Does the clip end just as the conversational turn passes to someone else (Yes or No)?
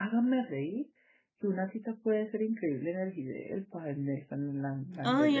Yes